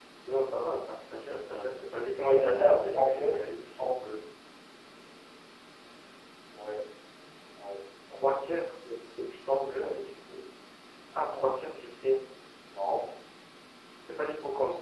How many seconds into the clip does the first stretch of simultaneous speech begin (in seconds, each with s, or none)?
1.5 s